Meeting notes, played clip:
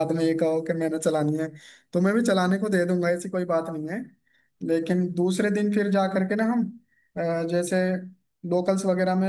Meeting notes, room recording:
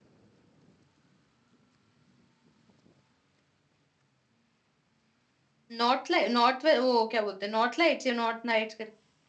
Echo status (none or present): none